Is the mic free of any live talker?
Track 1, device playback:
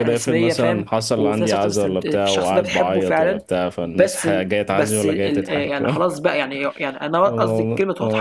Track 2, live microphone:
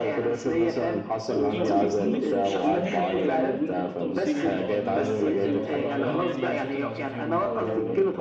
No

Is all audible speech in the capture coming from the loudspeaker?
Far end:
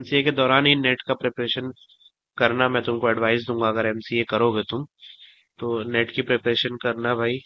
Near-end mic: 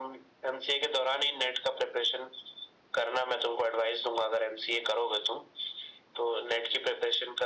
Yes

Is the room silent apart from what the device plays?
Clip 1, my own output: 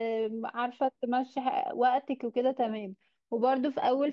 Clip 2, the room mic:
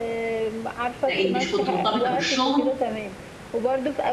No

